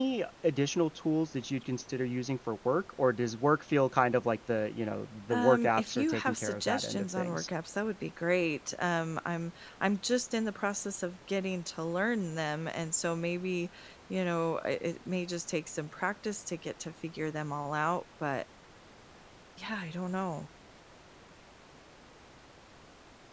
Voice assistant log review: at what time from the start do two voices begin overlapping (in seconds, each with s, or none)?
5.3 s